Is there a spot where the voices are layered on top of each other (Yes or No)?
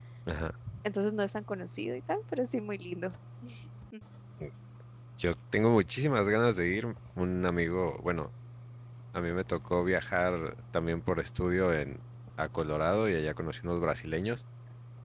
No